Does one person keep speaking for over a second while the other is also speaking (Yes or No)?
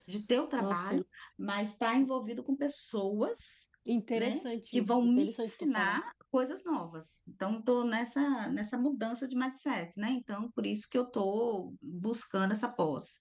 Yes